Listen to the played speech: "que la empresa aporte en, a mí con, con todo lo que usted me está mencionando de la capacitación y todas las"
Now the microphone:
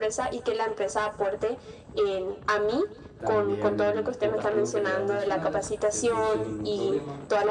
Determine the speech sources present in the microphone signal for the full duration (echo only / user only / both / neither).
both